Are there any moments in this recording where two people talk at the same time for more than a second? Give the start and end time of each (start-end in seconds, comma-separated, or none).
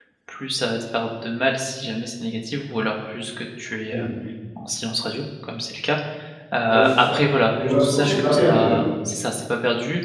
7.6-8.8